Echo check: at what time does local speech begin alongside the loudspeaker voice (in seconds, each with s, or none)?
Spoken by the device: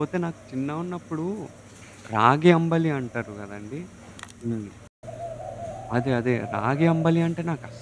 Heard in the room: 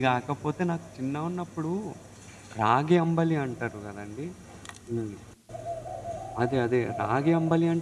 none